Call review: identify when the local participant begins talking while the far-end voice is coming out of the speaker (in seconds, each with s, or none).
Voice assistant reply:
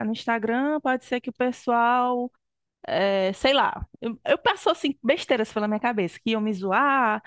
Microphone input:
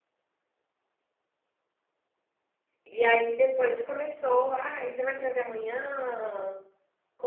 2.8 s